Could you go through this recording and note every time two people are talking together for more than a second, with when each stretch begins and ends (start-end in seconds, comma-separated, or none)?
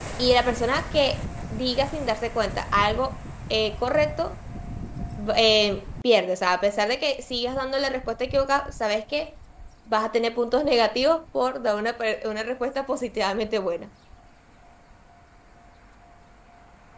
none